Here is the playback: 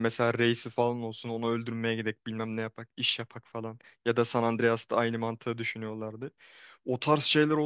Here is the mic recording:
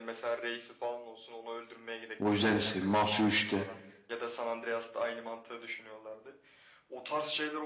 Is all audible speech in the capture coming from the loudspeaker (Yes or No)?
No